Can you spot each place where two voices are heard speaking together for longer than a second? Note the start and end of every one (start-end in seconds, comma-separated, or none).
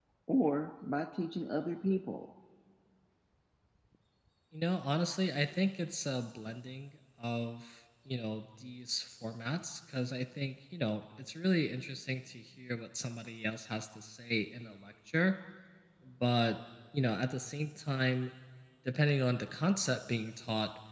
none